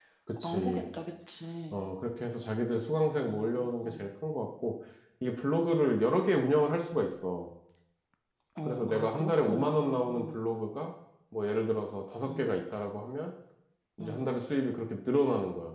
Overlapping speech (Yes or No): Yes